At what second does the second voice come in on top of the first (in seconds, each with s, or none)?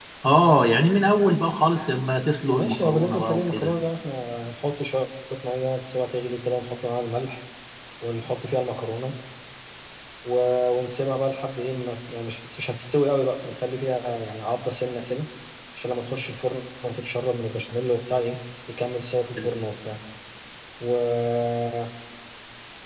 2.5 s